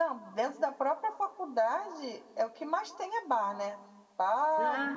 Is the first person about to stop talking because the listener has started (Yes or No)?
No